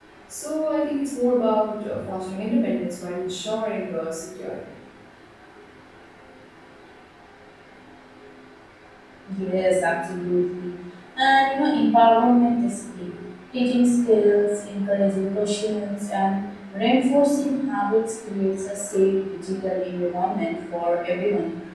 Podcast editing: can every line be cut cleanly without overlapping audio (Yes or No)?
Yes